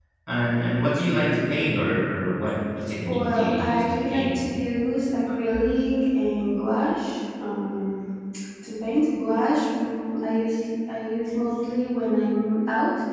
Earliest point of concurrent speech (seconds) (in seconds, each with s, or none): 3.0 s